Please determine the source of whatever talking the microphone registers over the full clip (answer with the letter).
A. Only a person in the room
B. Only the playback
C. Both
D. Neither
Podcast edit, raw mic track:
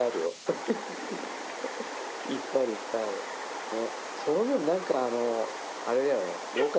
B